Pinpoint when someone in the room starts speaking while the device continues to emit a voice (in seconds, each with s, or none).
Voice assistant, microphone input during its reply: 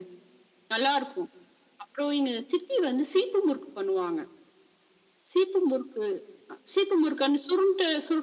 none